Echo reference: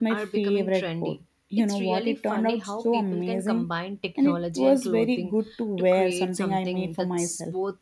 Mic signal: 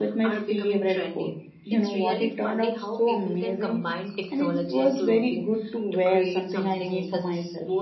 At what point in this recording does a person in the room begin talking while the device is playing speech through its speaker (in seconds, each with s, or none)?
none